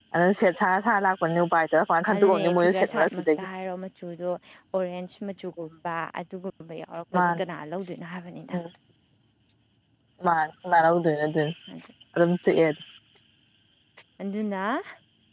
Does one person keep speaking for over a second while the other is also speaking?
Yes, from 2.1 s

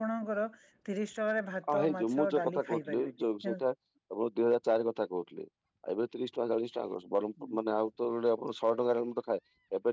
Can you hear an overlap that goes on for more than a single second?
Yes, from 1.7 s

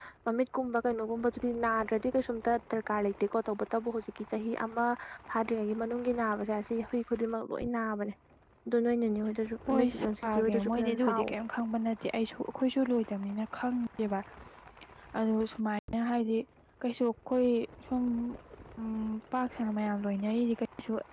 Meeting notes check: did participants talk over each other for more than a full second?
Yes, from 9.7 s

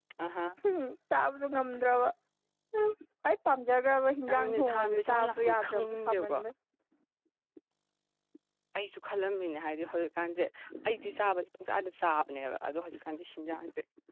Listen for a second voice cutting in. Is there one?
Yes, from 4.3 s

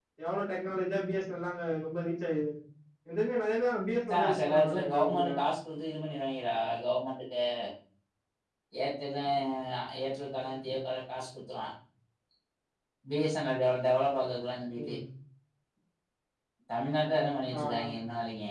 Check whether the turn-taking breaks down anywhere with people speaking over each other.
Yes, from 4.1 s

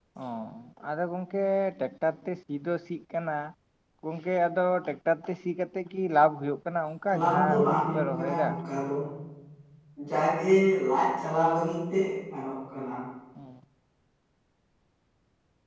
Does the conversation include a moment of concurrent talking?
Yes, from 7.1 s

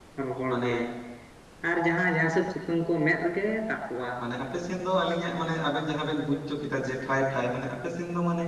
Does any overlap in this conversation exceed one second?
No

